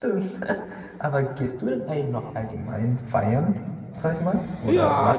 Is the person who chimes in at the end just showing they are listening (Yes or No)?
No